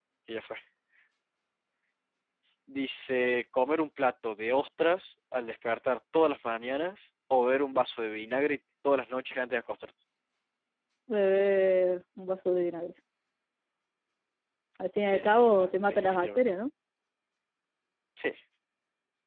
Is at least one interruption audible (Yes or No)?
Yes